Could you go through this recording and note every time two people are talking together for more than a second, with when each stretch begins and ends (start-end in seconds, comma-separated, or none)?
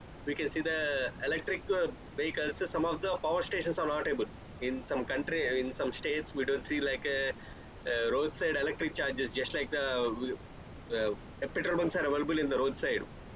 none